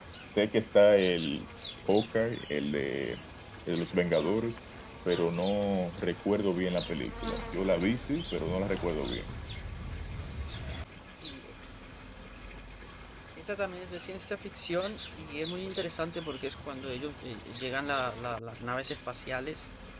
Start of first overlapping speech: none

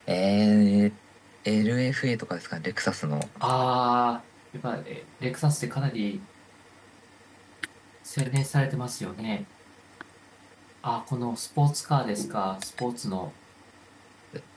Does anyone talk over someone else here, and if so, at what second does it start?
none

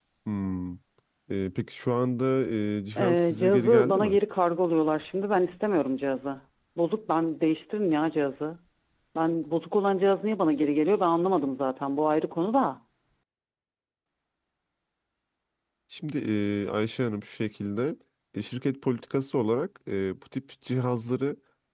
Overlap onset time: 3.0 s

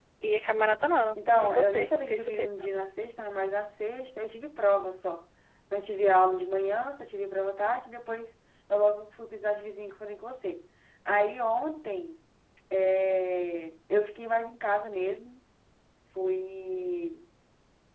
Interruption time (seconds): 1.1 s

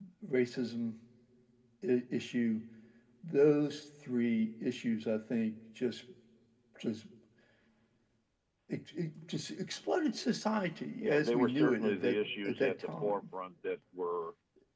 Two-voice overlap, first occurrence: 11.0 s

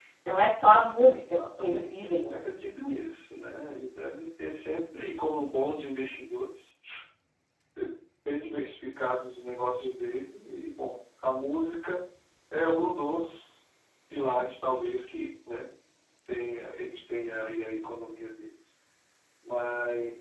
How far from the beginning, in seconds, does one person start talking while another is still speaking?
1.0 s

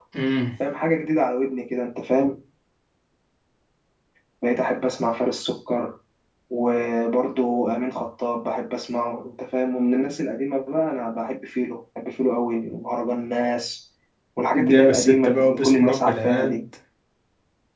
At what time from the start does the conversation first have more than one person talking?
14.5 s

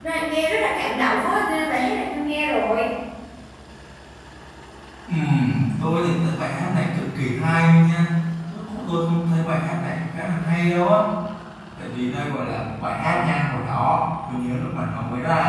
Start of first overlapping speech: none

